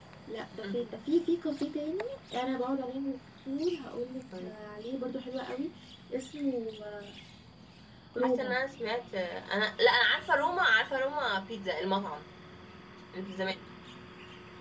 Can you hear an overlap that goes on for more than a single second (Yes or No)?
No